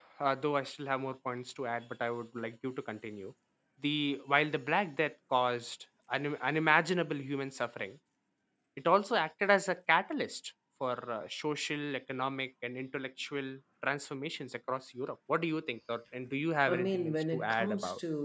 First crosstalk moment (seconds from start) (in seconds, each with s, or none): 16.7 s